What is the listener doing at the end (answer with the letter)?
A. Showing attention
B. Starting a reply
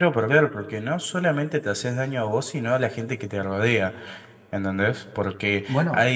A